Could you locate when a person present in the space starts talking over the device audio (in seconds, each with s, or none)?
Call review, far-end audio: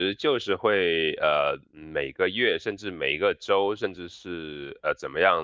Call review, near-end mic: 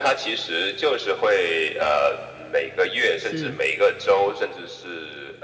3.1 s